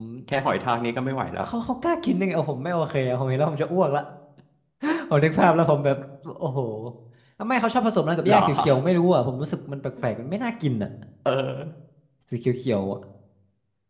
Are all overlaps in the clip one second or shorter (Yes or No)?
Yes